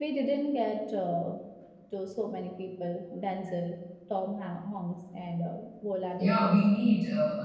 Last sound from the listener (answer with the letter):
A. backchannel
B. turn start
B